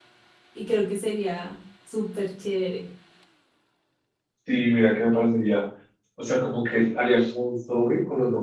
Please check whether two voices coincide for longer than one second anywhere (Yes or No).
No